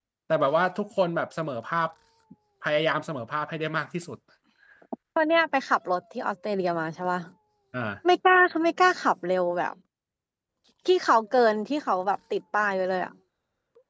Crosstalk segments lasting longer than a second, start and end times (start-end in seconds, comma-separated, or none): none